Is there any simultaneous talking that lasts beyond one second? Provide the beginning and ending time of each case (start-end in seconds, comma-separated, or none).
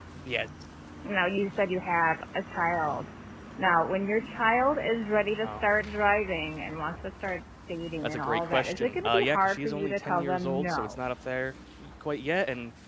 8.0-11.0